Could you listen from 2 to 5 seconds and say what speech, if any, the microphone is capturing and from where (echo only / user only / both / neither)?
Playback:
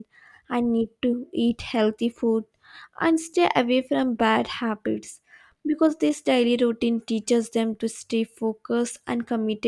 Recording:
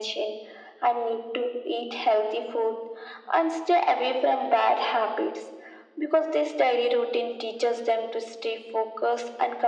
echo only